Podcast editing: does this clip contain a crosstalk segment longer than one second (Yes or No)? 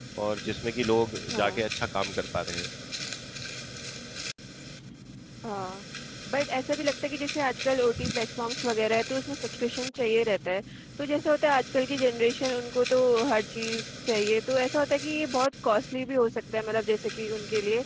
No